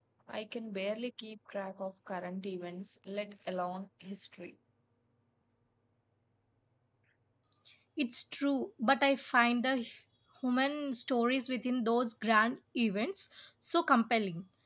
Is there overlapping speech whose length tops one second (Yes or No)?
No